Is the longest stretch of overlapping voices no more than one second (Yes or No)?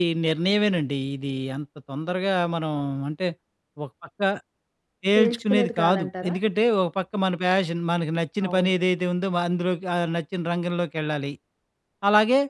No